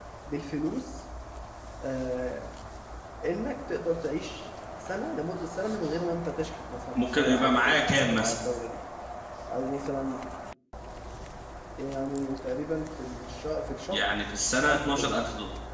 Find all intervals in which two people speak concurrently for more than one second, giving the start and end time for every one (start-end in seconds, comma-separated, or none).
6.9-8.3